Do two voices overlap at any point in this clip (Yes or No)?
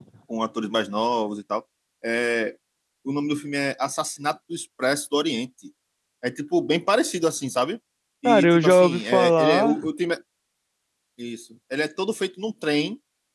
Yes